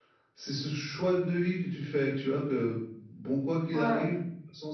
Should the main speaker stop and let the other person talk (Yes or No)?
No